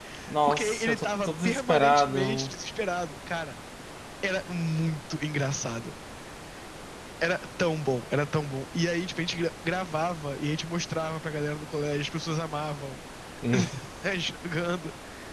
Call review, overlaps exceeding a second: present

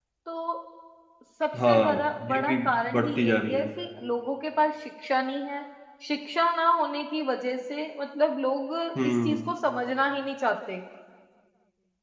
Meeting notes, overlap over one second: present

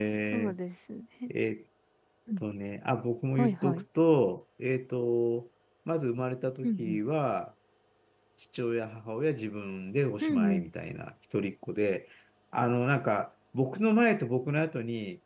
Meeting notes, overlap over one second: none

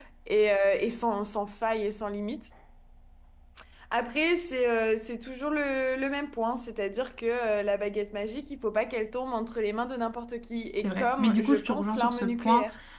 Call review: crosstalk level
present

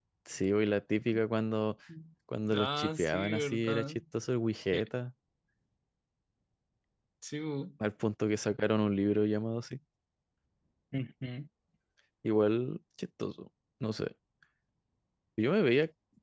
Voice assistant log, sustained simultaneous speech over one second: present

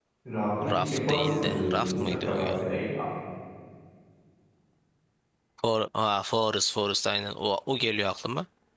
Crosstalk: present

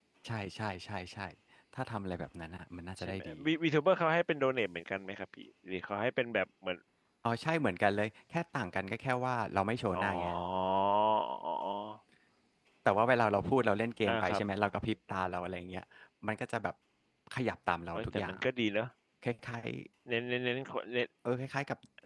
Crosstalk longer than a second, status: none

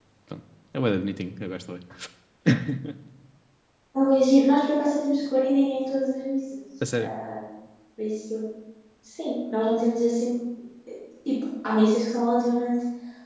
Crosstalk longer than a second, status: none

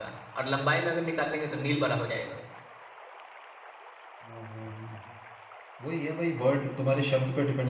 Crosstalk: none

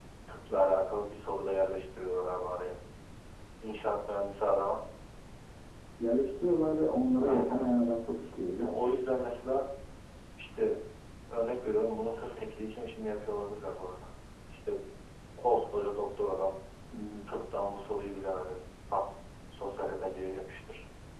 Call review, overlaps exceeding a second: none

